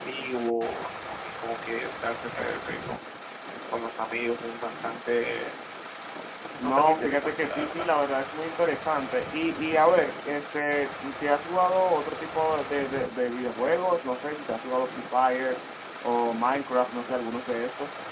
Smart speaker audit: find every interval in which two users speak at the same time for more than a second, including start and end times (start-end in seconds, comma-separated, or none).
6.6-7.8